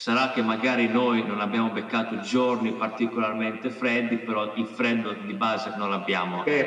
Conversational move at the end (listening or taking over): taking over